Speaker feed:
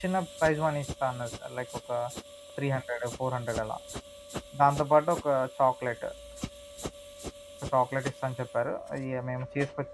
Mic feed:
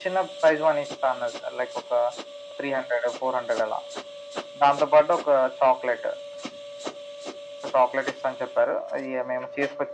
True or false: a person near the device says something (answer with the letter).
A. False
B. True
A